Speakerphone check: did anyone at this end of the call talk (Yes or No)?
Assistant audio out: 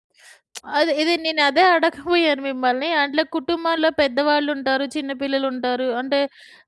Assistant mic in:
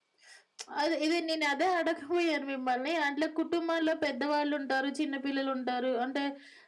No